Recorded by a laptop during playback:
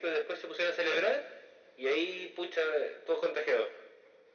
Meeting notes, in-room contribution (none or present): none